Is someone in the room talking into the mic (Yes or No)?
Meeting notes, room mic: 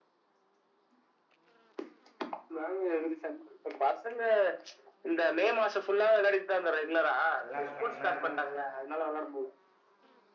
Yes